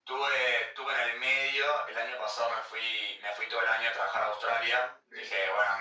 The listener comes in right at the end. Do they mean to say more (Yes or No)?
No